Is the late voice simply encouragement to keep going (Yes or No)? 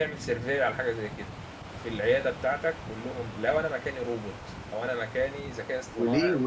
No